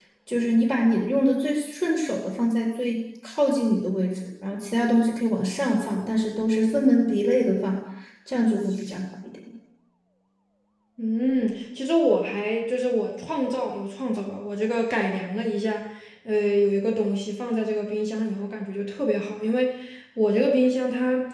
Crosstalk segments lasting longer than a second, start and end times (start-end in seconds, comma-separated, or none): none